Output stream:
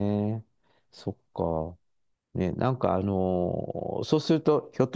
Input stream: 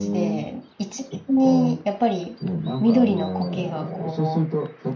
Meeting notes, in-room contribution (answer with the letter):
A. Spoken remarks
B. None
A